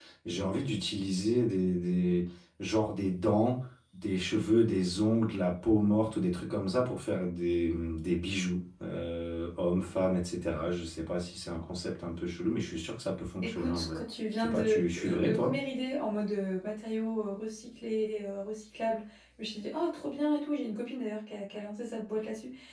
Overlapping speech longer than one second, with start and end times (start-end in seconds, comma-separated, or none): 14.4-15.6